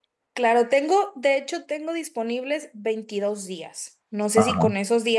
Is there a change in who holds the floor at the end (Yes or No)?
No